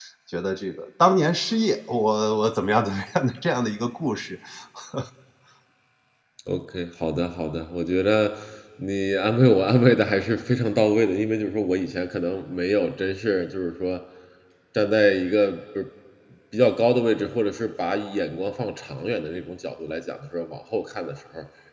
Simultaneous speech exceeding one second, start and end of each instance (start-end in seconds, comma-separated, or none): none